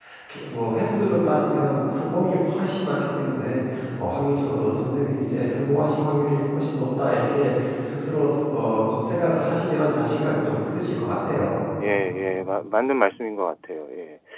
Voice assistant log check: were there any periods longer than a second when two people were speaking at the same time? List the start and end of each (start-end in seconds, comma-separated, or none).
none